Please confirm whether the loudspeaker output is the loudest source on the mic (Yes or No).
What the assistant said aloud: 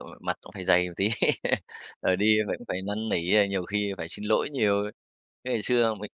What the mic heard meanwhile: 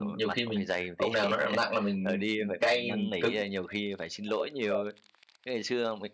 No